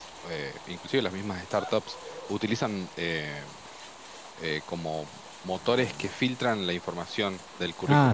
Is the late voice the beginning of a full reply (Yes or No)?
Yes